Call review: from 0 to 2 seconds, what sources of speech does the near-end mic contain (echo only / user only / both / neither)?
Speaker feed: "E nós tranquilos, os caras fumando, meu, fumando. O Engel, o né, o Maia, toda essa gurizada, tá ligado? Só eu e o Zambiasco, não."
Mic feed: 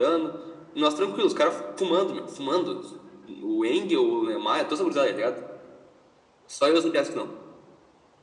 echo only